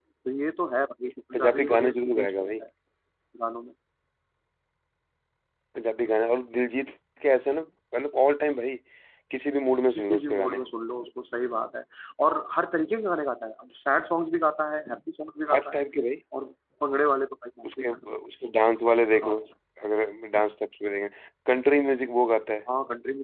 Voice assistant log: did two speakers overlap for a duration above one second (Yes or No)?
Yes